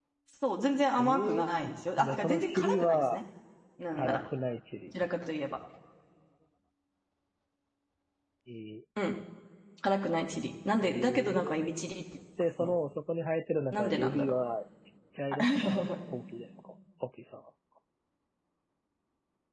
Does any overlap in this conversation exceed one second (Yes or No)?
Yes